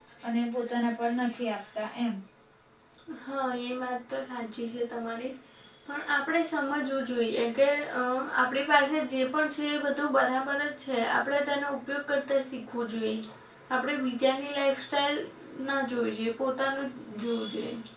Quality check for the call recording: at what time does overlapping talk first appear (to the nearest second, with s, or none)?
none